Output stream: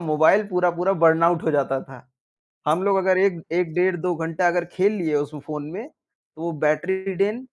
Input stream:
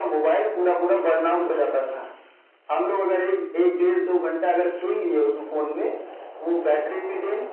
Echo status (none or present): present